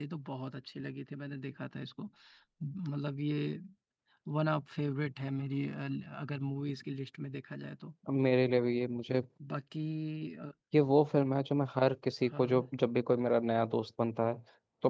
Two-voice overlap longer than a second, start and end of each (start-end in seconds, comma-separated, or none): none